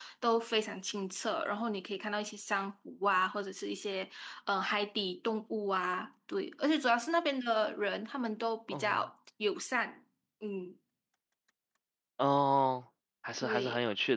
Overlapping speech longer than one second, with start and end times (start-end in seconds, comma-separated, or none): none